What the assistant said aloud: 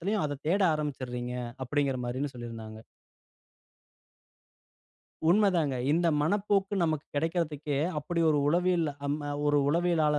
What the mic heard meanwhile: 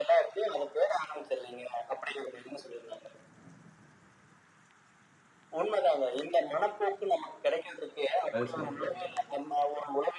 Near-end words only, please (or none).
அது சரி.